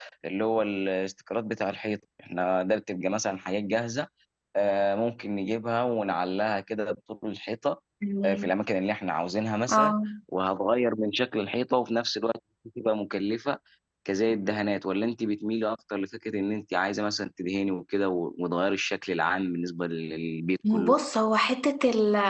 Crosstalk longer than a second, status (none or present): none